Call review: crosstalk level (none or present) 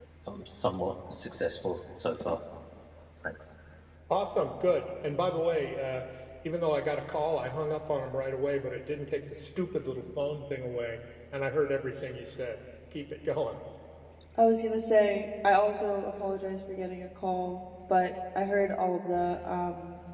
none